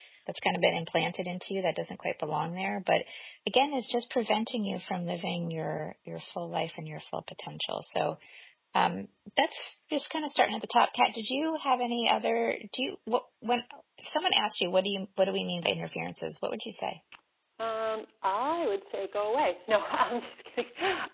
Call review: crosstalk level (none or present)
none